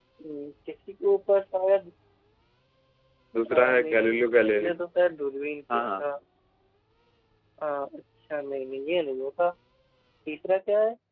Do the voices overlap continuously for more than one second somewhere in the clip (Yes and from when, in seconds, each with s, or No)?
Yes, from 3.5 s